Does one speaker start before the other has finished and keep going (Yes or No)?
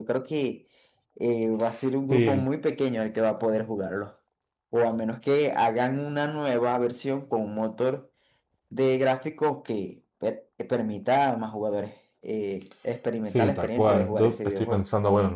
Yes